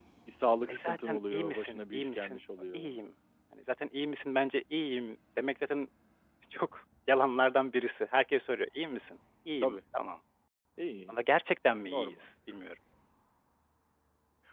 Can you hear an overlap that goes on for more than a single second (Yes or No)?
Yes